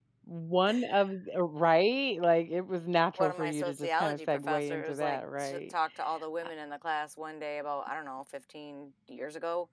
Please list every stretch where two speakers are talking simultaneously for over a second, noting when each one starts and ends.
3.2-5.7

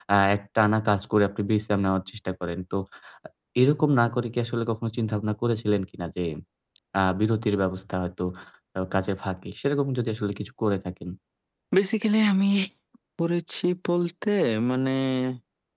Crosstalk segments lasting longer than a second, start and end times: none

